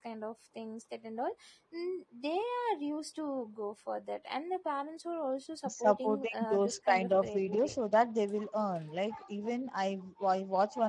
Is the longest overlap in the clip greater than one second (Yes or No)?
Yes